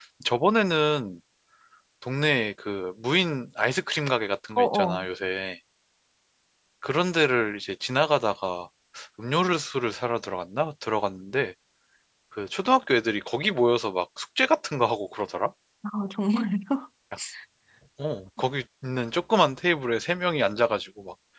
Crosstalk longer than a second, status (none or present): none